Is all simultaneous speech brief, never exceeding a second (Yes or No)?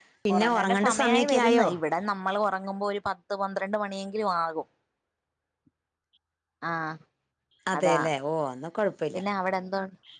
No